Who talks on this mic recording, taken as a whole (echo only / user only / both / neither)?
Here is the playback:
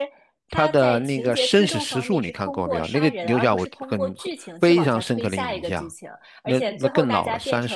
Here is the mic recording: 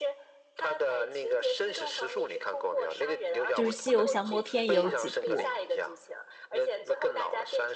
both